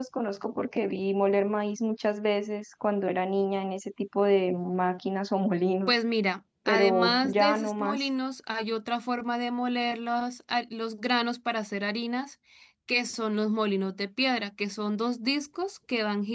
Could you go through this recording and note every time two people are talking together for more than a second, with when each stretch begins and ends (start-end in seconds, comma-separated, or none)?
6.7-8.0